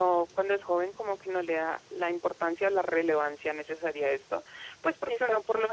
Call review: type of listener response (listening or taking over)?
listening